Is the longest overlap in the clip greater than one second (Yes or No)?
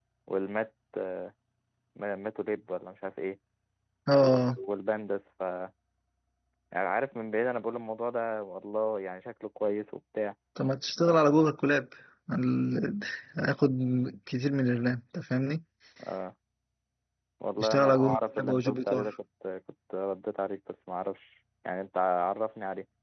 Yes